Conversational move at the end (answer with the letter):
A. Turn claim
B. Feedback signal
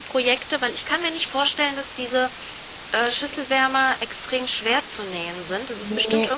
B